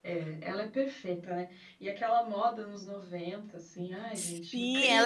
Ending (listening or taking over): taking over